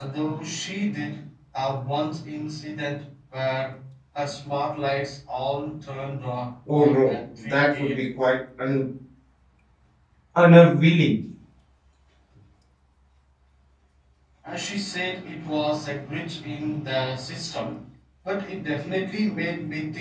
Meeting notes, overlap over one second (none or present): present